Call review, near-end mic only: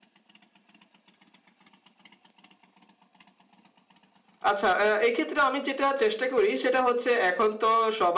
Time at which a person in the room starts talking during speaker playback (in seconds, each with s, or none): 4.5 s